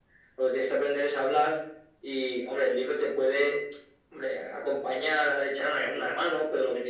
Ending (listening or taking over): listening